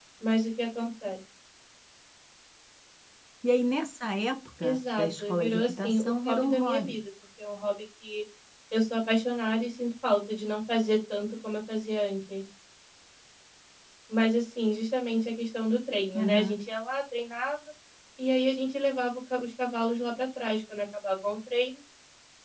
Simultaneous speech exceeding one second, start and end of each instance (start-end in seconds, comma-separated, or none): 4.6-7.0